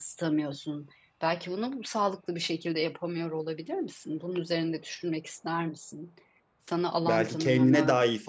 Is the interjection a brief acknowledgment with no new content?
No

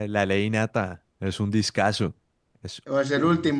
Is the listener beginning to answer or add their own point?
Yes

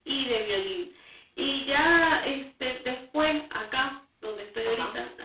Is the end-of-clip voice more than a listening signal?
No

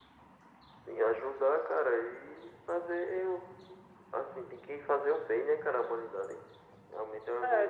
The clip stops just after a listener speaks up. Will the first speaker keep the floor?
No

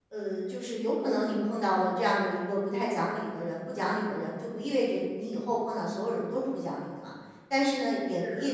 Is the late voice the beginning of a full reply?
No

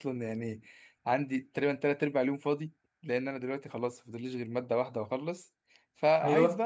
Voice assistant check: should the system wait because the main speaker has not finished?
Yes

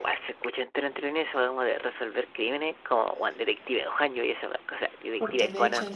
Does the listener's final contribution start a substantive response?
Yes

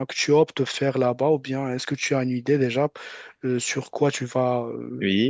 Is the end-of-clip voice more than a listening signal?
Yes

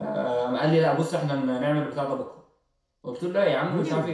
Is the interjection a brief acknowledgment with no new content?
Yes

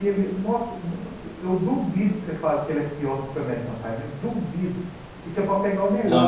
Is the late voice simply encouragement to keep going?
Yes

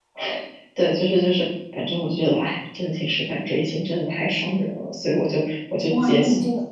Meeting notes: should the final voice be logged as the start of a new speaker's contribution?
Yes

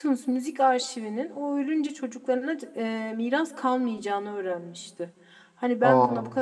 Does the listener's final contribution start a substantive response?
No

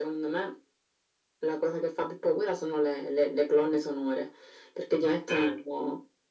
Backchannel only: Yes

